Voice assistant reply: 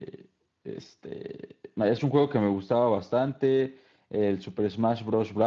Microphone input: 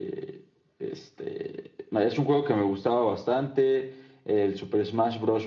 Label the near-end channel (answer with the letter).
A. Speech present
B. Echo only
B